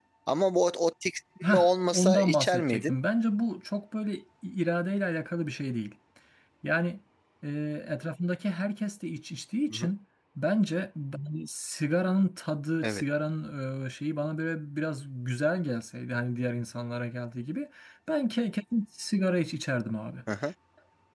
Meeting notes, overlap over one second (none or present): present